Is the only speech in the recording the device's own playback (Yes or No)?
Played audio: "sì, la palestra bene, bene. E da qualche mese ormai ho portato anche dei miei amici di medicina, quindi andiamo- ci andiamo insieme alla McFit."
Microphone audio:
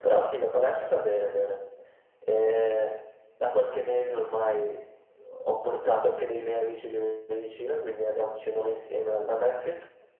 Yes